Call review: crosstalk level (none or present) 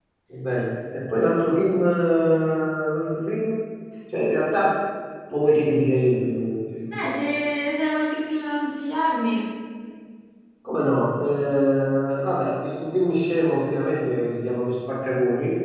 none